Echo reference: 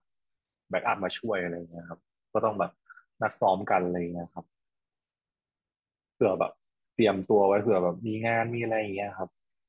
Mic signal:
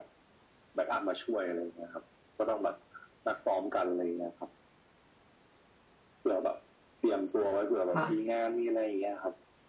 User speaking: Yes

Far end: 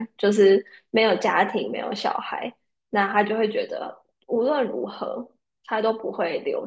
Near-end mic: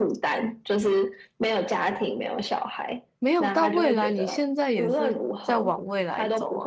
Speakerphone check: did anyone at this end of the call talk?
Yes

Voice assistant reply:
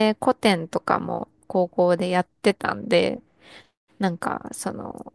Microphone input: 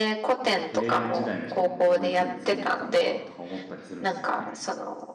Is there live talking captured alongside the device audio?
Yes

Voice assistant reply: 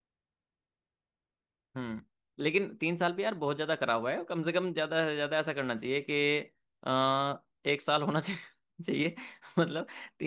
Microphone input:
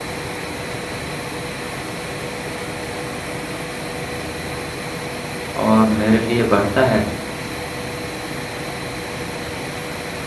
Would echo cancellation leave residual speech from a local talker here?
Yes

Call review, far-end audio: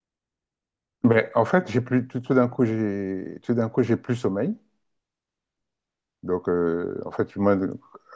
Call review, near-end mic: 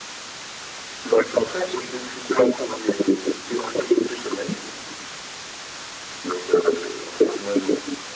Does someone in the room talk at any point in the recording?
No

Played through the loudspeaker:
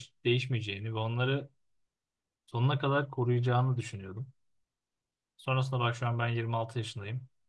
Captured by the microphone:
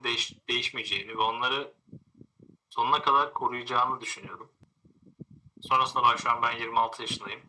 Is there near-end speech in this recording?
No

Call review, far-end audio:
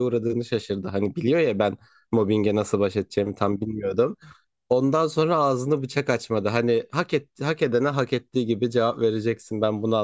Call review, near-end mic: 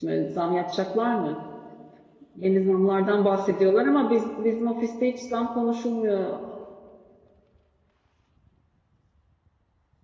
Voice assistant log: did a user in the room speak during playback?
Yes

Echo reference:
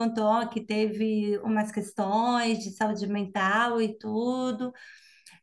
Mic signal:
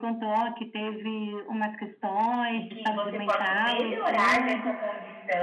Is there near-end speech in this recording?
Yes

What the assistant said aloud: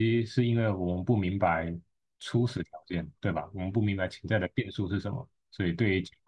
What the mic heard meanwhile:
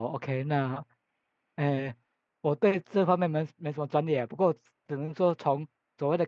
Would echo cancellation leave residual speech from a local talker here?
Yes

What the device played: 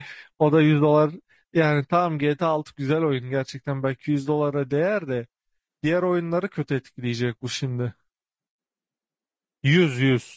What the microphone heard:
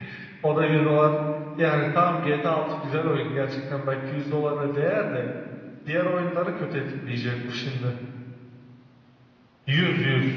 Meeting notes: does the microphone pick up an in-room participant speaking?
No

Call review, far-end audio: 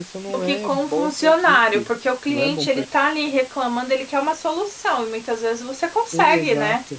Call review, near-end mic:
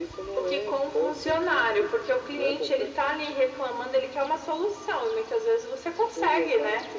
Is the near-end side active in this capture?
No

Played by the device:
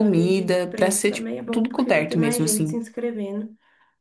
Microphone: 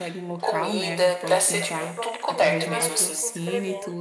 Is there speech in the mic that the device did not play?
Yes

